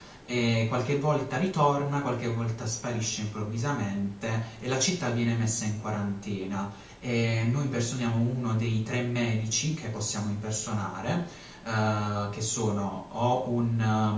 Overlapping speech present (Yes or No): No